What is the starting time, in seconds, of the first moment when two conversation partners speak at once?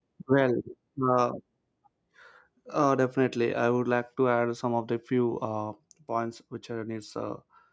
none

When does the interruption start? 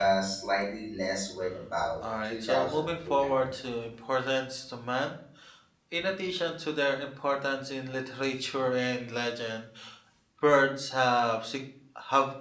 2.0 s

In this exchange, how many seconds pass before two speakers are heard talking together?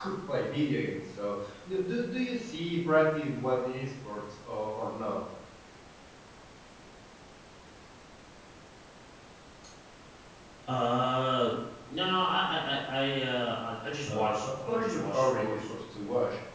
14.1 s

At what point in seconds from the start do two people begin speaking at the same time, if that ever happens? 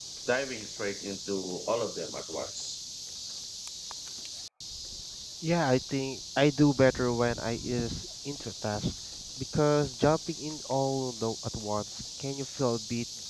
none

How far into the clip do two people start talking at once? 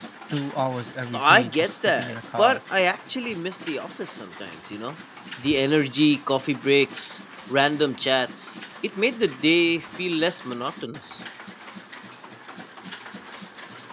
1.1 s

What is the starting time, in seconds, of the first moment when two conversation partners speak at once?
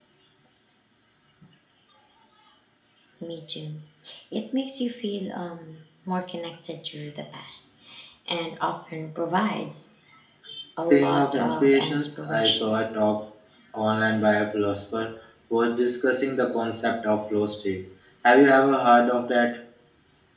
10.9 s

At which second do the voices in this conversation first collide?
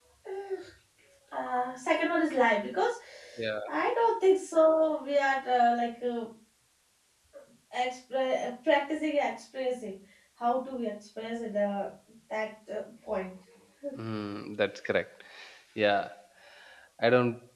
none

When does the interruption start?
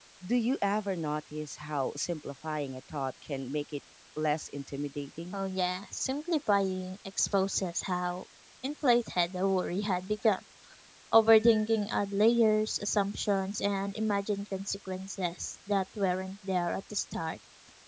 none

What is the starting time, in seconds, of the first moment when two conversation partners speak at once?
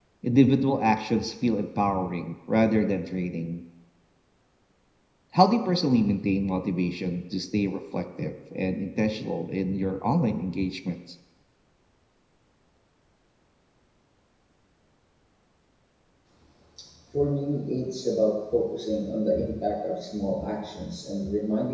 none

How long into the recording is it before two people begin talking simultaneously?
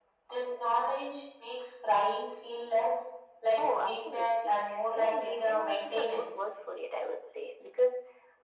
3.6 s

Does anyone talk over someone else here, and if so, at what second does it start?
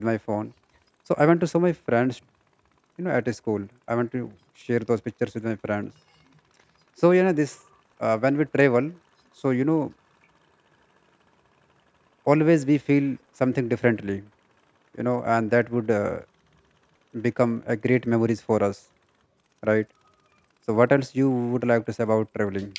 none

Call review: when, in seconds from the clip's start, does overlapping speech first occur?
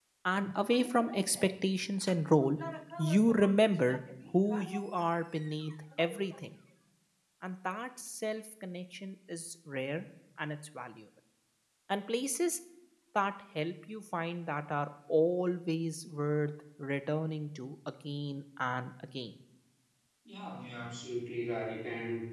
none

